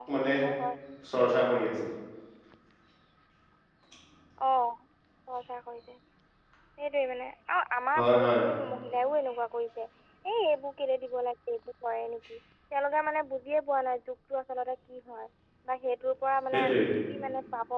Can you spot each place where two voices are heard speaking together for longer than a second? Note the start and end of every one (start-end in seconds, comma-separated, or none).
none